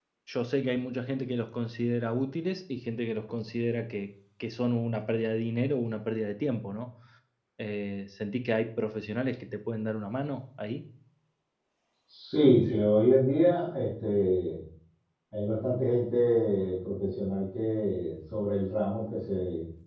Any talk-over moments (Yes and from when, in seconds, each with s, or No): No